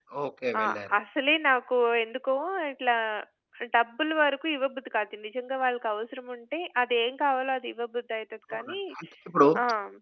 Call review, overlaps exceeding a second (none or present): none